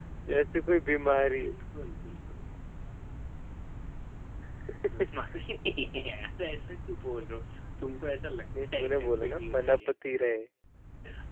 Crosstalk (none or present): present